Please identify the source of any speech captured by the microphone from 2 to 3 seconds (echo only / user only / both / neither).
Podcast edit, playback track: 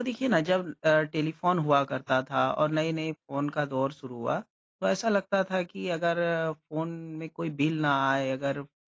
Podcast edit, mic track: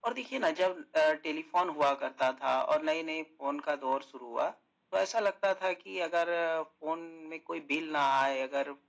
echo only